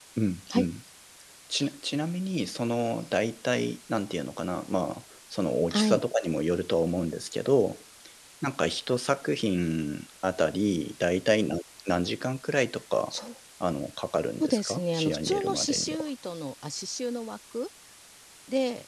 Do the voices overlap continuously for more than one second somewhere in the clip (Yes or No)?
Yes